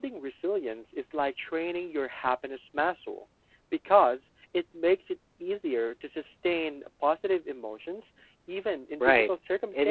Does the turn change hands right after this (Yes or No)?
Yes